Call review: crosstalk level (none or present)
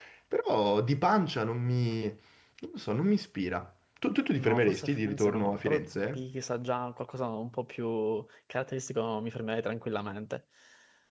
present